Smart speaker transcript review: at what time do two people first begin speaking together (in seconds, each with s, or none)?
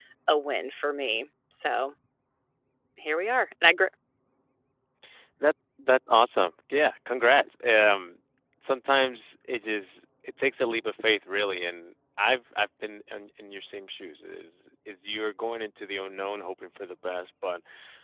none